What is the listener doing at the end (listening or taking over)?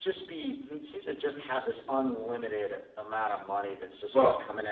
listening